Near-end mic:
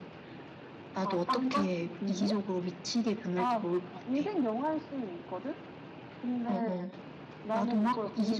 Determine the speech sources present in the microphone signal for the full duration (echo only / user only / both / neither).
both